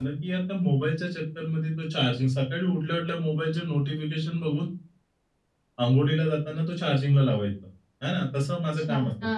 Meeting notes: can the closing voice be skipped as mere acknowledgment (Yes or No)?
Yes